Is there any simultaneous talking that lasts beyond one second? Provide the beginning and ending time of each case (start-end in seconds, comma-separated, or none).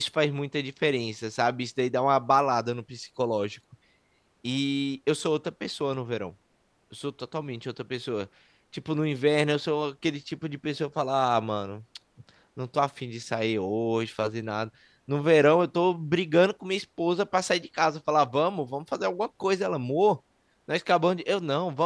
none